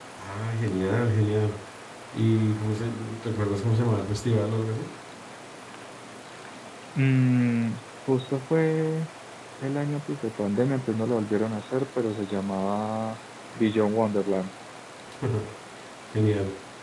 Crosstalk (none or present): none